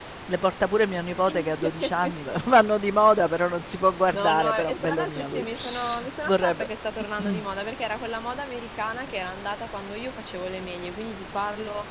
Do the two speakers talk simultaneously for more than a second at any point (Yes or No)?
Yes